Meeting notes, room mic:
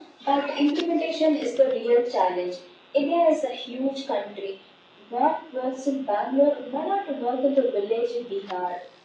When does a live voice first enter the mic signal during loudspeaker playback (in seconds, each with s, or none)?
none